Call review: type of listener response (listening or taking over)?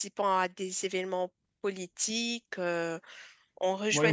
taking over